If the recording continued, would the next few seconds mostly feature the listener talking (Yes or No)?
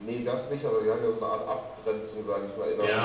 Yes